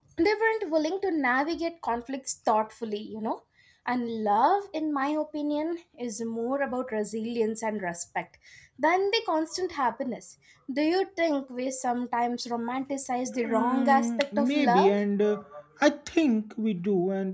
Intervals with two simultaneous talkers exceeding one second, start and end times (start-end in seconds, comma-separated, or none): 13.4-14.9